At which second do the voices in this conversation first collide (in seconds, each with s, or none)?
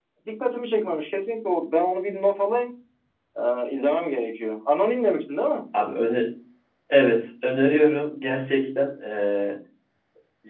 none